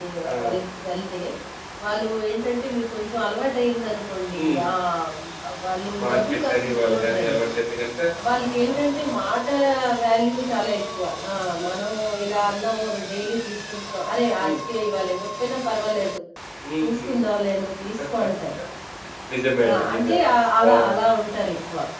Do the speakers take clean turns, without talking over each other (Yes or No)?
No